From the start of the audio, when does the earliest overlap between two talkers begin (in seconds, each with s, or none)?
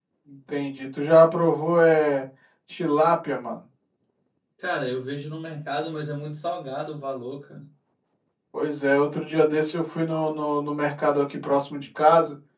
none